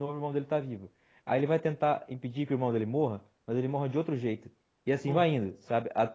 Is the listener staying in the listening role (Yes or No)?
Yes